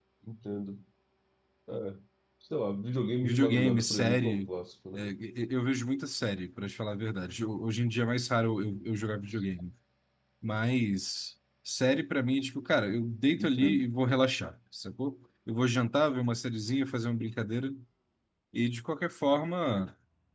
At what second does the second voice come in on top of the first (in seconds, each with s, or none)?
3.2 s